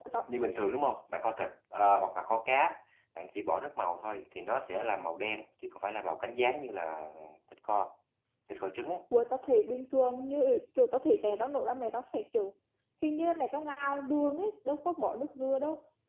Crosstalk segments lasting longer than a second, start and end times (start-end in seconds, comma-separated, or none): none